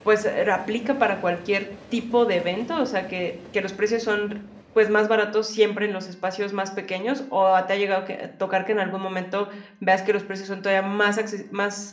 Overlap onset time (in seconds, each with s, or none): none